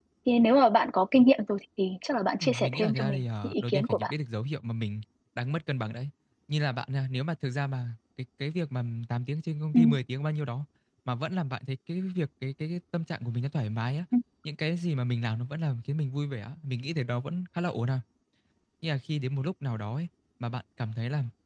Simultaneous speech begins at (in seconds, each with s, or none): 2.4 s